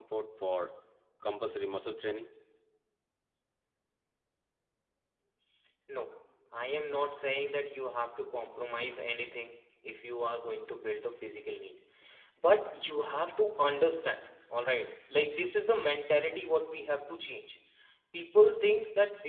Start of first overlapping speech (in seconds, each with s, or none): none